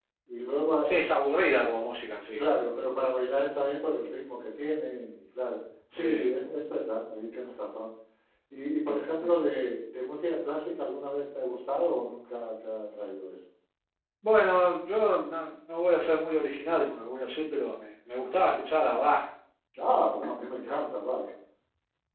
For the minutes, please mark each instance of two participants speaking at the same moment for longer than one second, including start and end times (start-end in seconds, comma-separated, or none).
none